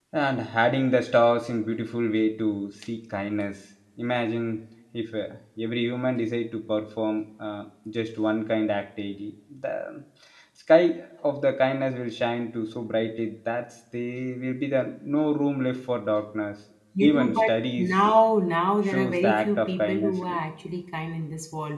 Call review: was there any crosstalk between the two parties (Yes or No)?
Yes